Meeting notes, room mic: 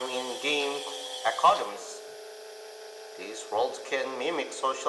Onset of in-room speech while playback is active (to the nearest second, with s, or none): none